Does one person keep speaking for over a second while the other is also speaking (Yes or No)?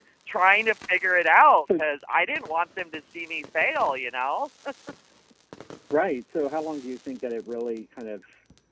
No